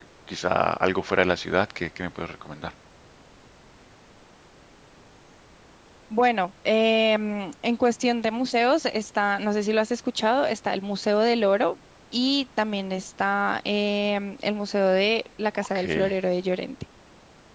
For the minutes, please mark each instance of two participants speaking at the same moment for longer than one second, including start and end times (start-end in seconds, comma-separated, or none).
none